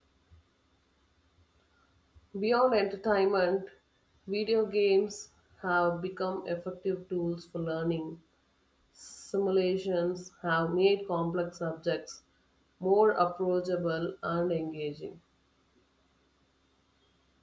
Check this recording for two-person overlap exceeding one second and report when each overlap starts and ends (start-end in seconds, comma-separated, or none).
none